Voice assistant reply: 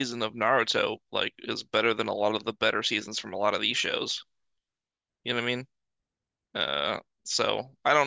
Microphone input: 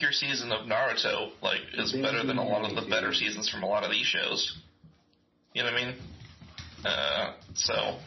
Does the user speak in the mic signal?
Yes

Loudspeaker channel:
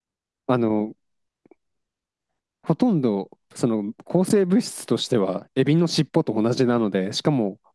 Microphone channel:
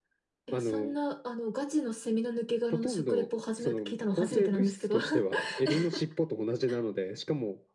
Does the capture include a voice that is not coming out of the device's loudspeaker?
Yes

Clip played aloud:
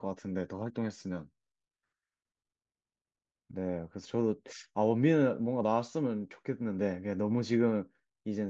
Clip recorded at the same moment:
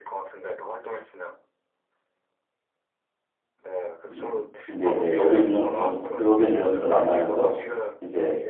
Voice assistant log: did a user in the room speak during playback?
Yes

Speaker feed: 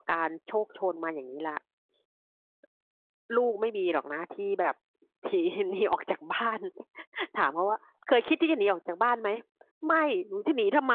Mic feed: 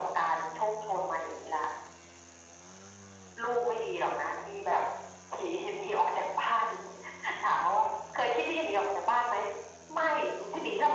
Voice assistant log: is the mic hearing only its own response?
Yes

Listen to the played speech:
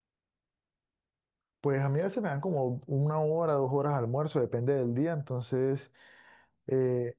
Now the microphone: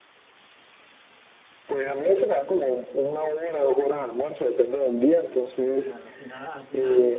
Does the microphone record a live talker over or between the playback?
Yes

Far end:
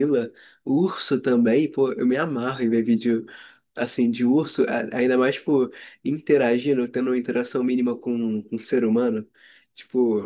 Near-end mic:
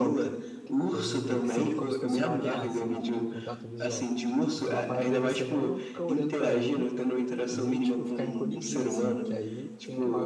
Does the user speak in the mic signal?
Yes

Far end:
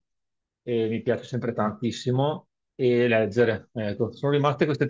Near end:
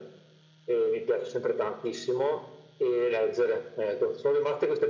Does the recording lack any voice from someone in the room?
Yes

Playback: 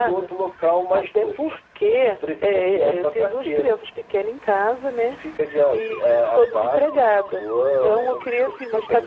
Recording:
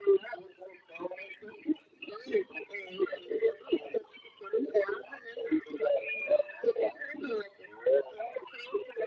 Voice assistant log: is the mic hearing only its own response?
Yes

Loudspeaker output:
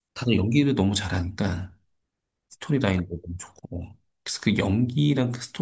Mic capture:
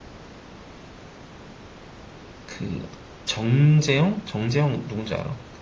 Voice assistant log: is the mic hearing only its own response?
No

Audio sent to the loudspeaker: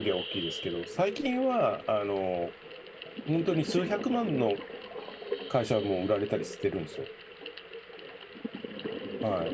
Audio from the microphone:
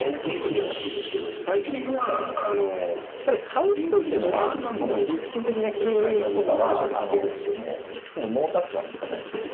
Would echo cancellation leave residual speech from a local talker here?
Yes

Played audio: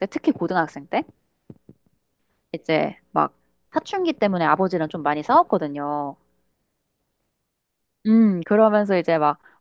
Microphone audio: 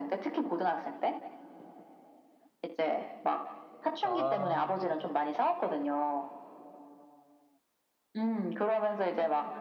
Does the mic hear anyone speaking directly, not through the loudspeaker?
Yes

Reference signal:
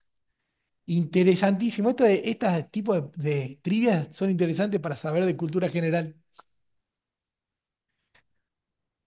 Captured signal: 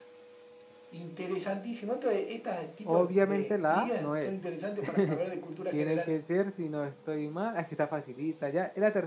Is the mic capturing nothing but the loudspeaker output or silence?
No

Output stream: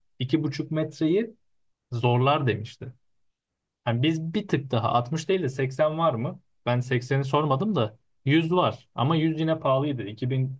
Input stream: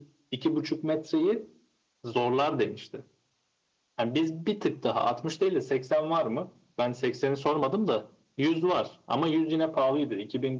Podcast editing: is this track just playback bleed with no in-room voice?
Yes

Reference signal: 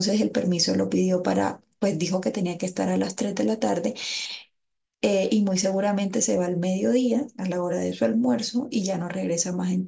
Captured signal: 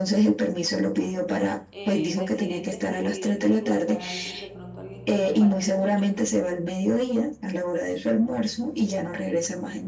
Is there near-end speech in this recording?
Yes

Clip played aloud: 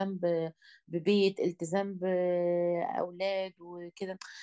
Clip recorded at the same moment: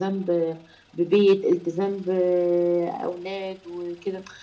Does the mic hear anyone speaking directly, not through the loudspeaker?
No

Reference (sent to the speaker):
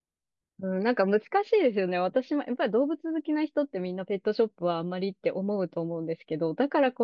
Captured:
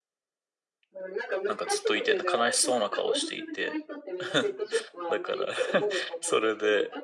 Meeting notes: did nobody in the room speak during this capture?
No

